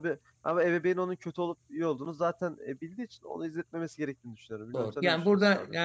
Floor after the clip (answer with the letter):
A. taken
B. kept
A